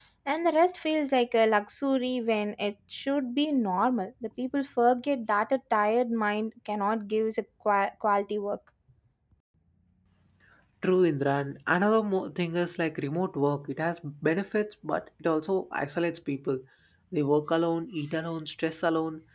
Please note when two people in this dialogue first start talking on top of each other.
none

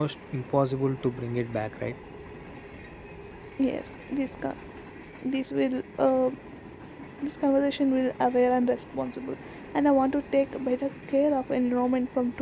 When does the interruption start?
none

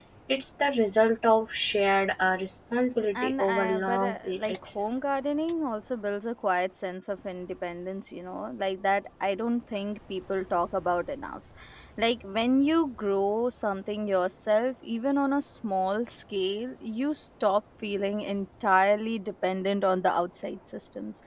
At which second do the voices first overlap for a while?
3.1 s

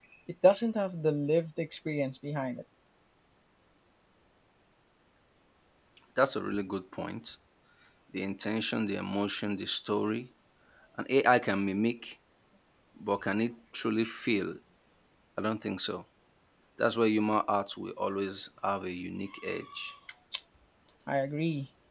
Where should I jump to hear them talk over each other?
none

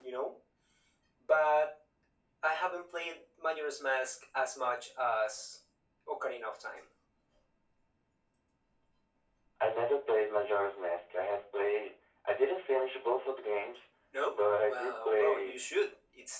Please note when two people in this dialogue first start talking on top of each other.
14.3 s

